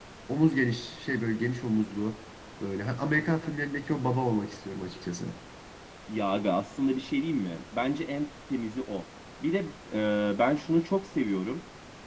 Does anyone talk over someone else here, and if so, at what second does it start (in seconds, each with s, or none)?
none